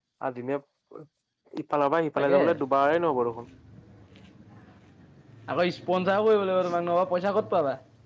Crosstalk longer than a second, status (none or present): none